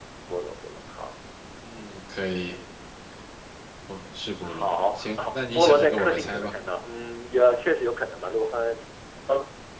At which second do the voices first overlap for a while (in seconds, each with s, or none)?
4.4 s